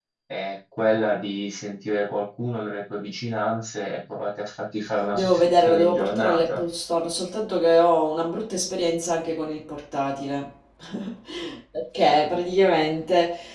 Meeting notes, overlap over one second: present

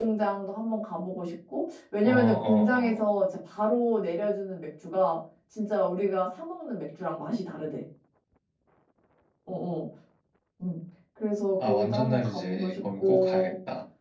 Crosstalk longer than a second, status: present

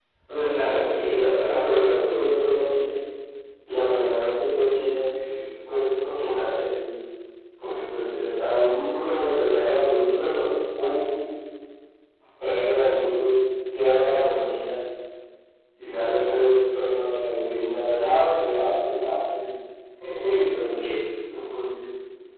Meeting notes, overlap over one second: present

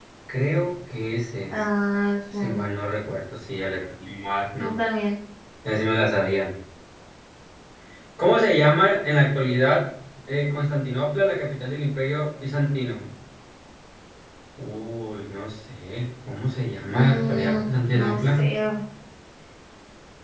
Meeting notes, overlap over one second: present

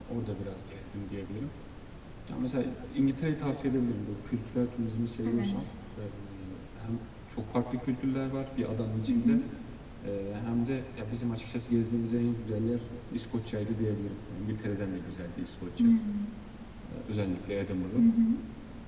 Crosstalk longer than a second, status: none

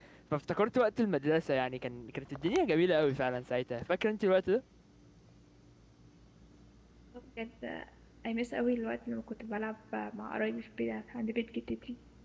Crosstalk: none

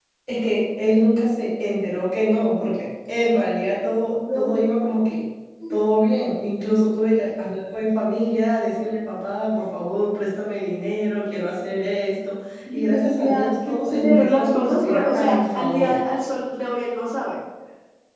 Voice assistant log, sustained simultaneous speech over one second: present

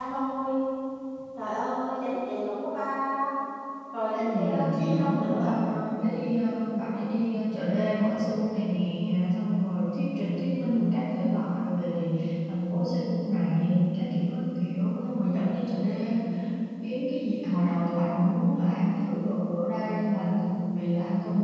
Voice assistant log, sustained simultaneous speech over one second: present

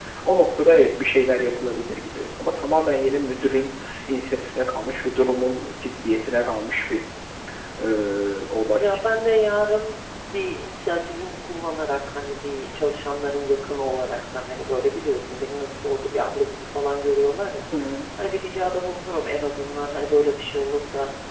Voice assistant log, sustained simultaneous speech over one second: none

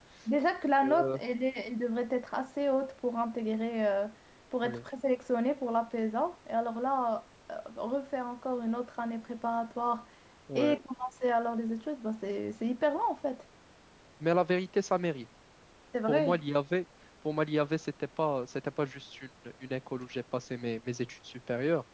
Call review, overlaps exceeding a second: none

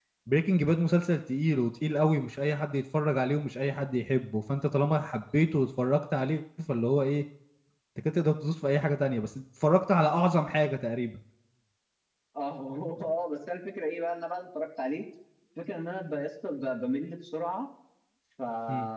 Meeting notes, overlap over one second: none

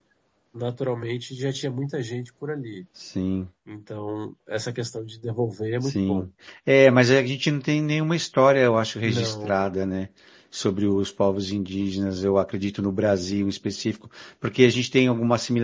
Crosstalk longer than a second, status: none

